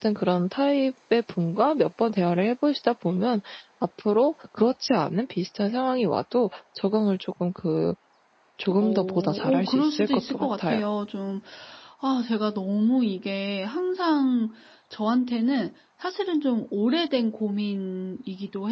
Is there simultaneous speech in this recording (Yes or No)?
Yes